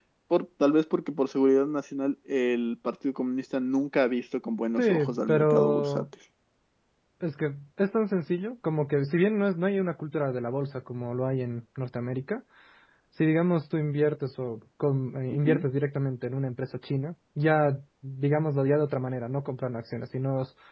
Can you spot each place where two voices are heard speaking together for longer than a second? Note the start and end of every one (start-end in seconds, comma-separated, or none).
4.8-6.0